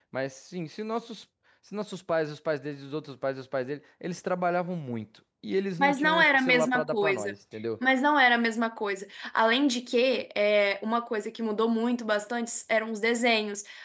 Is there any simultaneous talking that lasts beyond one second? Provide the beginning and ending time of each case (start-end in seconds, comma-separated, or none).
5.8-7.3